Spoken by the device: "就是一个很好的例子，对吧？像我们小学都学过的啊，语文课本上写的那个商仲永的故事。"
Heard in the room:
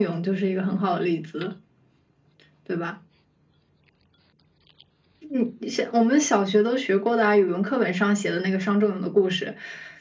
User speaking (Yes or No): No